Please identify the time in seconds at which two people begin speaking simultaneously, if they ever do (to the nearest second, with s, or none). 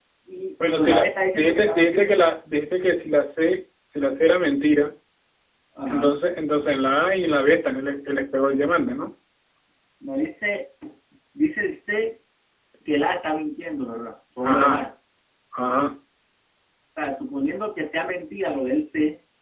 1 s